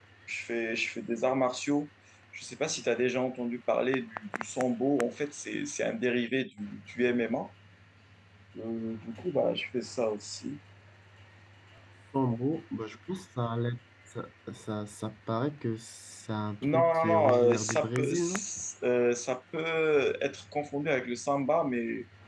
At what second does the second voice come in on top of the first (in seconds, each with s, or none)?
16.6 s